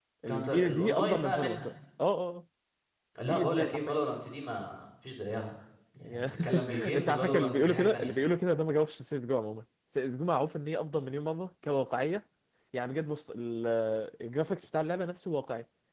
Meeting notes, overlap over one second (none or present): present